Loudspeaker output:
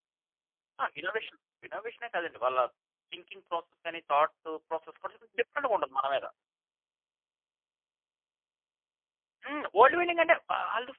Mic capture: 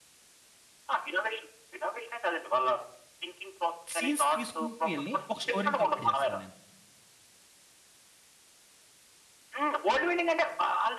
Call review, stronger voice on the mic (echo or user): echo